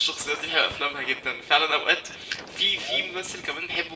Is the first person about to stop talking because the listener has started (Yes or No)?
No